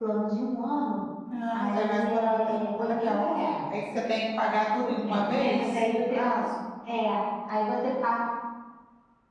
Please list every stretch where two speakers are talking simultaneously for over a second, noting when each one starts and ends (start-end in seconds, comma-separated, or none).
1.5-3.2, 4.8-6.2